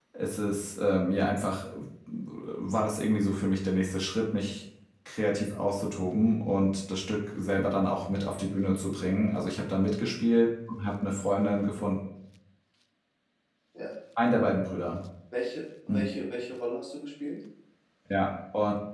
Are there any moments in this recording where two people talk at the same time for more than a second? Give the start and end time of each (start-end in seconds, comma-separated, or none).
none